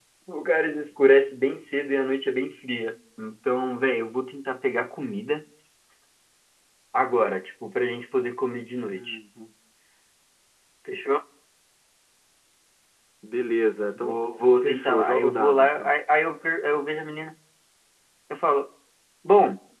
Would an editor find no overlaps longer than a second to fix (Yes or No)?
No